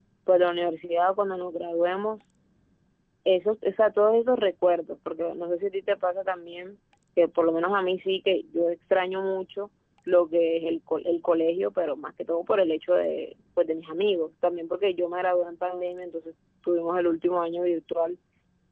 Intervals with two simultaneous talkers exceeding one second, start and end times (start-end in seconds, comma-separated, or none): none